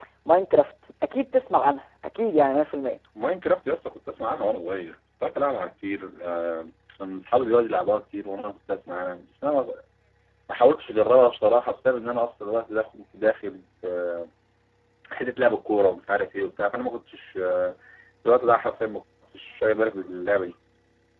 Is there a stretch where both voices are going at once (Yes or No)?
No